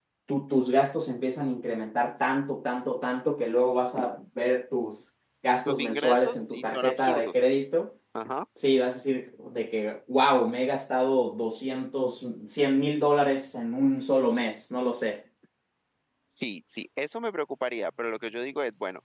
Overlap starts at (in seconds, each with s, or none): 5.7 s